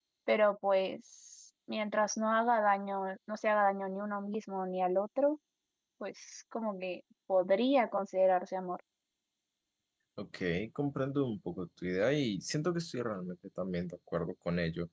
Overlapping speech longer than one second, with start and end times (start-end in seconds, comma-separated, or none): none